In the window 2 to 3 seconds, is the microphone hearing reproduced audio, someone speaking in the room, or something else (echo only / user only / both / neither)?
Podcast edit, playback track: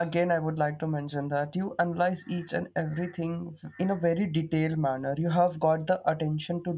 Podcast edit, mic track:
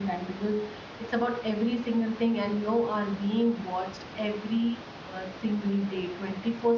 user only